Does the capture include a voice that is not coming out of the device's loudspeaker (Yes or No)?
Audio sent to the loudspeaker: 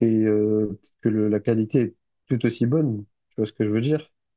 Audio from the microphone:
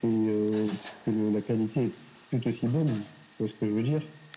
No